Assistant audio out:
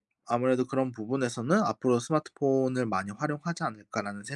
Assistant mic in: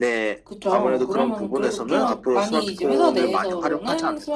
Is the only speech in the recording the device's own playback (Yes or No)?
No